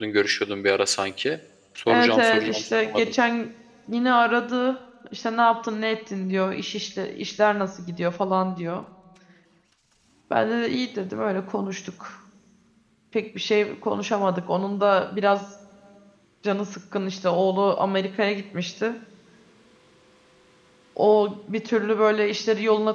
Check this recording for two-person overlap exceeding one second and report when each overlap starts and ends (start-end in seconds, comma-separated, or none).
1.9-3.1